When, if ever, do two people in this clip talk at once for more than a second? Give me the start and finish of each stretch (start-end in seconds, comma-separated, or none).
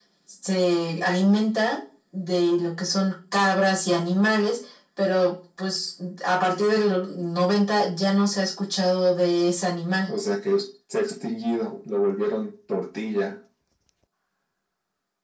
none